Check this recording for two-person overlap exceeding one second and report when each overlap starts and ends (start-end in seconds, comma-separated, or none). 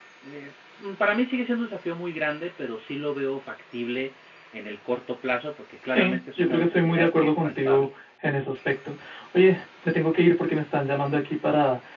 5.9-7.9